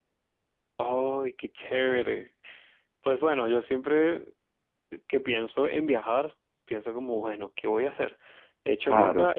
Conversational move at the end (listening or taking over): listening